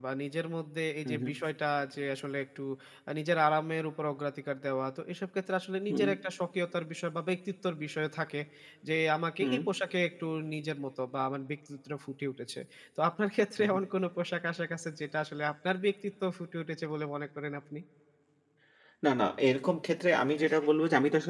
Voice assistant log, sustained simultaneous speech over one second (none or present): none